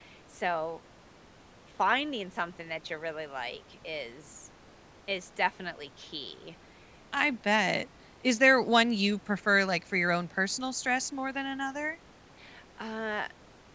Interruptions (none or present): none